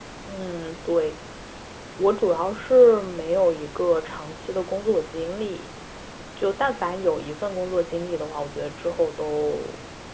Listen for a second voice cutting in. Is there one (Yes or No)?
No